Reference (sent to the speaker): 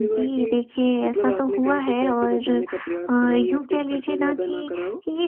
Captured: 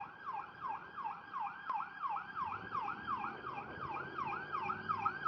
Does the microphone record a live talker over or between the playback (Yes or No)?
No